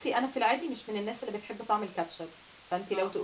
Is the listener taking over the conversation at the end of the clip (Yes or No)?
No